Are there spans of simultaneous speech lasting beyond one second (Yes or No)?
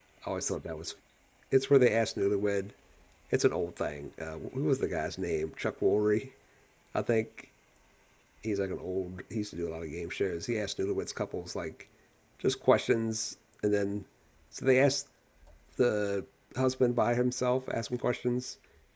No